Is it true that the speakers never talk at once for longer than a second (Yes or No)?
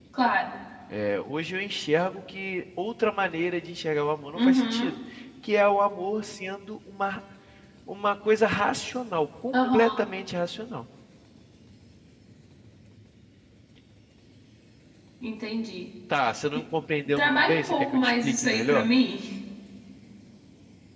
No